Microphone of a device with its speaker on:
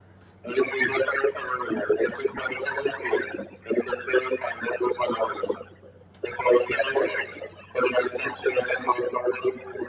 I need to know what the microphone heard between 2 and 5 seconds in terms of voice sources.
echo only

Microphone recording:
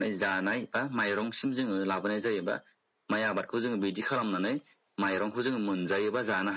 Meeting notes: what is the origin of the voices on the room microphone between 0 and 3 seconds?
echo only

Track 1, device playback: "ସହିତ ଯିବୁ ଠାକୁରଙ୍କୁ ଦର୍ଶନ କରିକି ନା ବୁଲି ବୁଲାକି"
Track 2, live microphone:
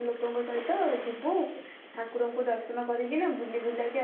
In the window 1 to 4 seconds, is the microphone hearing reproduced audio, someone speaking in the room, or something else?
echo only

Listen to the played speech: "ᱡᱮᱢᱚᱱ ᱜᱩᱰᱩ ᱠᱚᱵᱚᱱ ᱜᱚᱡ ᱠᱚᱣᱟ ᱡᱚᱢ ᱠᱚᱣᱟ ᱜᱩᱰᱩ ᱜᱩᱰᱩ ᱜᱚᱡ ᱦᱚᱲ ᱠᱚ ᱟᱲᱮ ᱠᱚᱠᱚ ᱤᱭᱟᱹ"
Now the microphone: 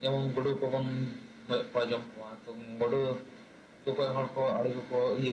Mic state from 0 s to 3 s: echo only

